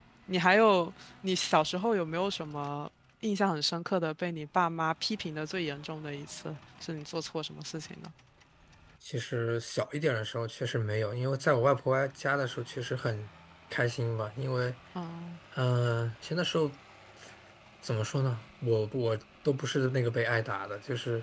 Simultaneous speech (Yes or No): No